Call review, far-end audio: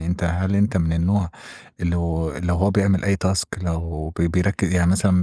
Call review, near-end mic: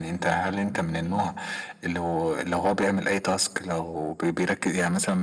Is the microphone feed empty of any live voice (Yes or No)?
Yes